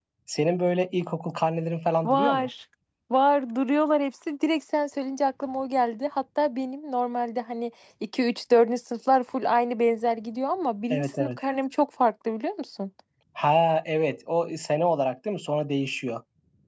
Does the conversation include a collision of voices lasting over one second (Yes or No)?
No